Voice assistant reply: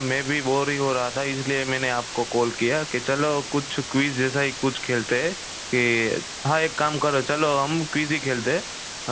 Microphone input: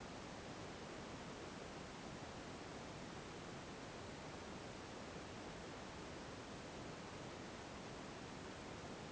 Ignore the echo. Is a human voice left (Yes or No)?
No